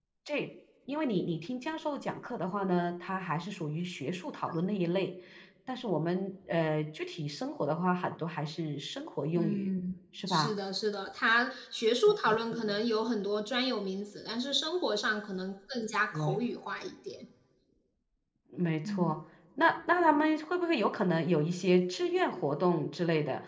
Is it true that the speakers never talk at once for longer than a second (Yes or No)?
Yes